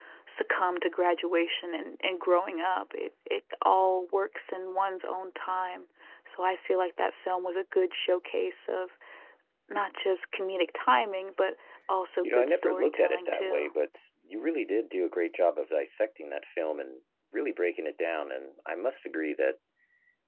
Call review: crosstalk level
present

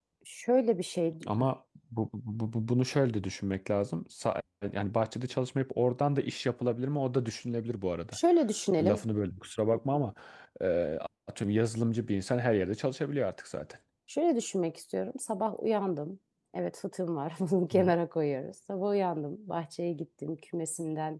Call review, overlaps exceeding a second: none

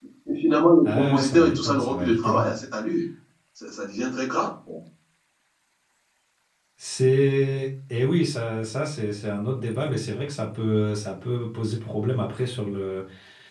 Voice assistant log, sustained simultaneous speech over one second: present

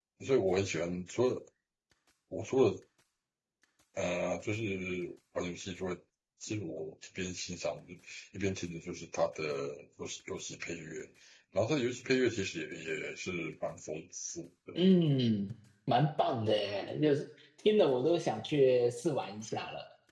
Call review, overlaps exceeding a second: none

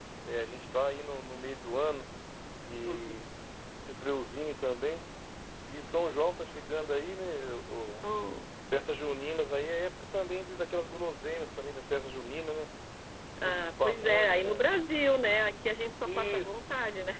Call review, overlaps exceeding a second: present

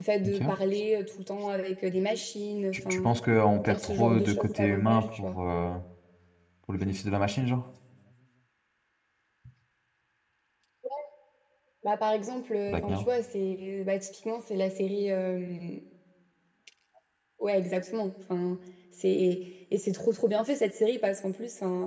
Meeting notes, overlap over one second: present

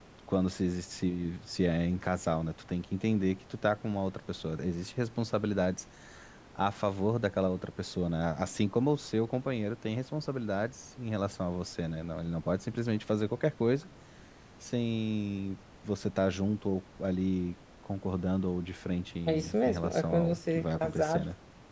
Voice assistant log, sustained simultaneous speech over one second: present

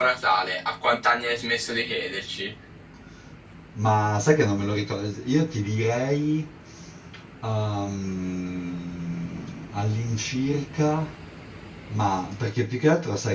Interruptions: none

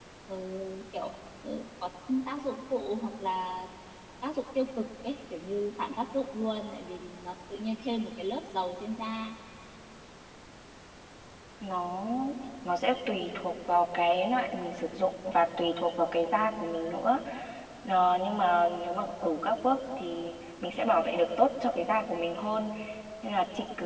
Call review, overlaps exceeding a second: none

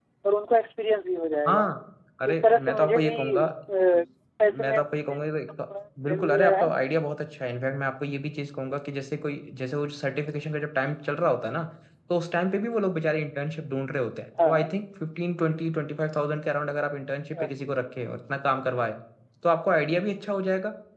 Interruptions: present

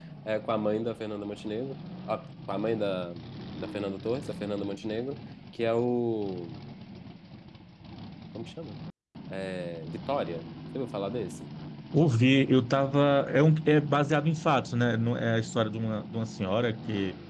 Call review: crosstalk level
none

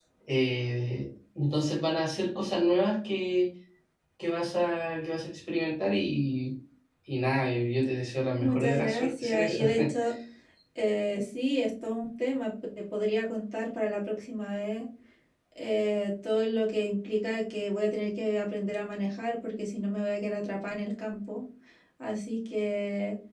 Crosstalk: present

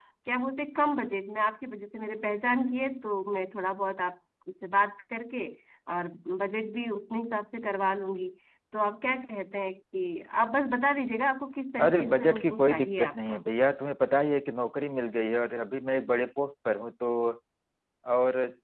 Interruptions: present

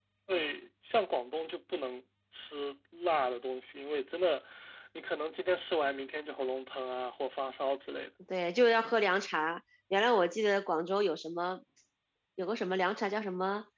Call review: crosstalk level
none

